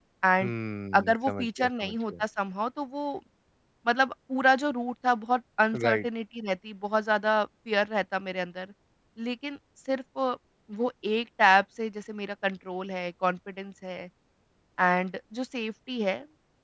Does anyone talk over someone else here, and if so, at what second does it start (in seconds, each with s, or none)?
0.9 s